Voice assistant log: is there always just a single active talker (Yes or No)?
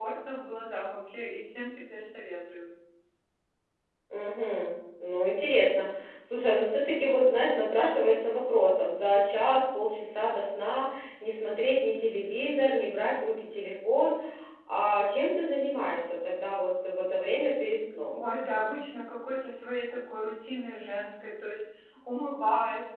Yes